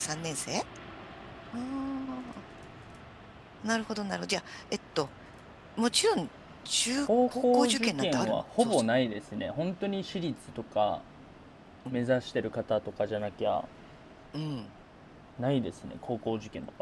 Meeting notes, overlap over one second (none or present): present